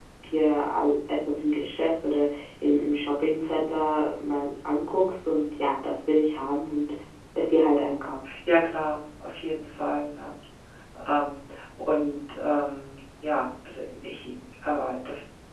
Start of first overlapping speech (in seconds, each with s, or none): none